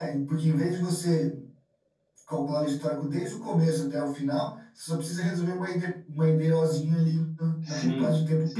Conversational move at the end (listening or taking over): taking over